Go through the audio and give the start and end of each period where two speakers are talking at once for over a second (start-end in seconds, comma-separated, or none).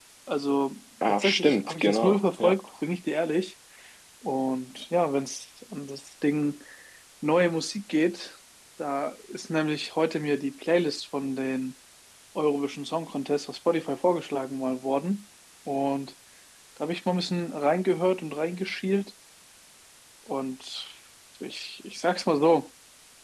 1.1-2.5